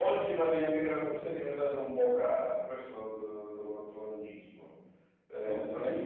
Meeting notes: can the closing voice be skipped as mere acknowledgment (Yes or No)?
Yes